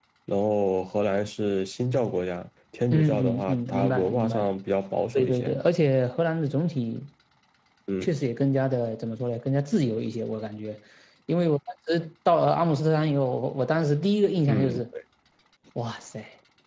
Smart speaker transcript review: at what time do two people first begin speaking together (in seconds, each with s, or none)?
2.9 s